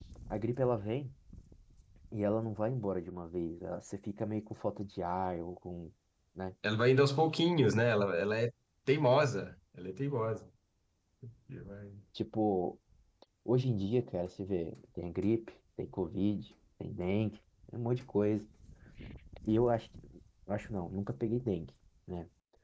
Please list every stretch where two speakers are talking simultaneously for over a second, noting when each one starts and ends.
none

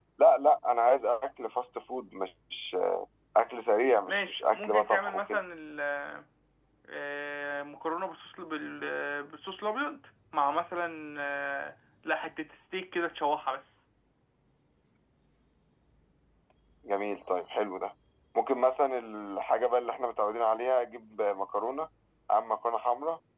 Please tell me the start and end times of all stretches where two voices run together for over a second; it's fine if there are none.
4.1-5.4

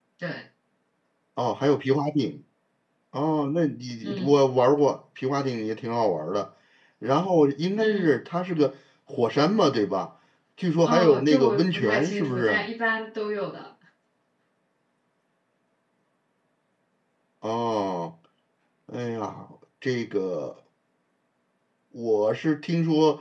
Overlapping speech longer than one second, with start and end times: 10.8-12.6

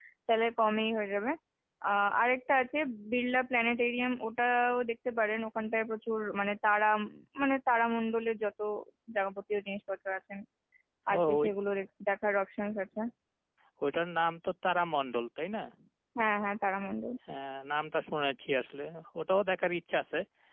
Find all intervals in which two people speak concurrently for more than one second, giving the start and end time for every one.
none

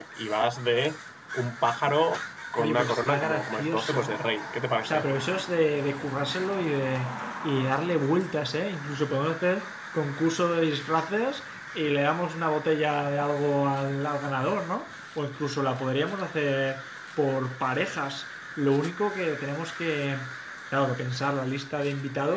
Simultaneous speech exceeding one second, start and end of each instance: 2.6-4.2

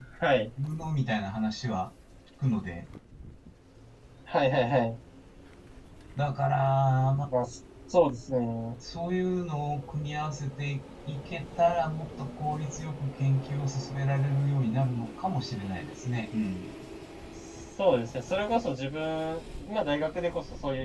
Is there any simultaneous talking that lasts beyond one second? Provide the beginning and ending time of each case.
none

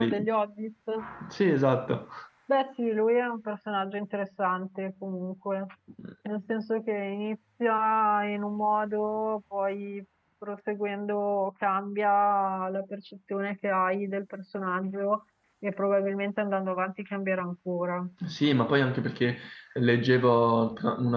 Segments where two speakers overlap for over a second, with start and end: none

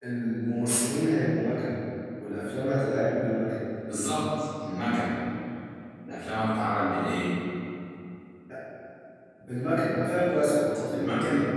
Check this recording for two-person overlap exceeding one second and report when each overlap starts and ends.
none

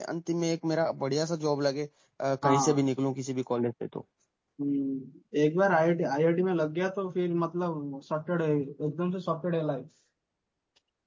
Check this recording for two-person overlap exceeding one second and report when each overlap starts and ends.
none

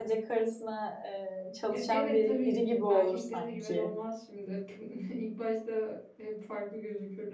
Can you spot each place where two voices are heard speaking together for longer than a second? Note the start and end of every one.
1.7-3.9

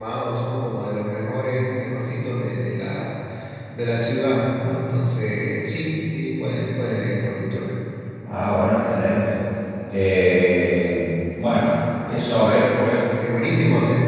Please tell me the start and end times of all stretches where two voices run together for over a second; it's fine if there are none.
none

